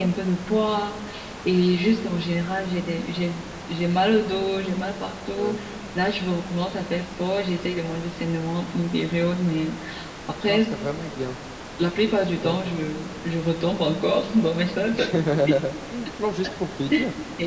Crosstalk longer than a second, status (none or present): none